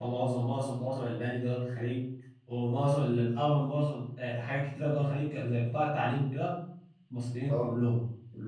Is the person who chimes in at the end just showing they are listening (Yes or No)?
Yes